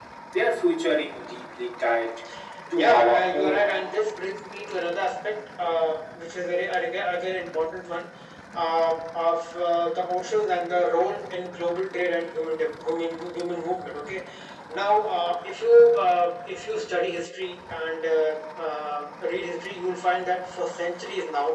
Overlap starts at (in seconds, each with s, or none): 2.8 s